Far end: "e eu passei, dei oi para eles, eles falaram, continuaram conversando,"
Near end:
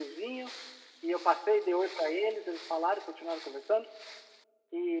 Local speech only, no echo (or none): none